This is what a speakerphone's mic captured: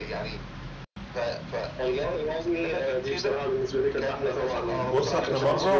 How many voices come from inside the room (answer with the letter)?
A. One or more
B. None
A